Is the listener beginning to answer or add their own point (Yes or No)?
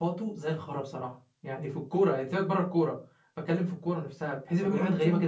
Yes